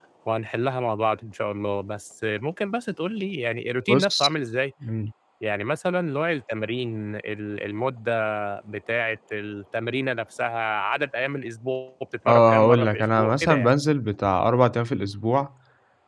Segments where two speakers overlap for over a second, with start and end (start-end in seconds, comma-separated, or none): 12.3-13.7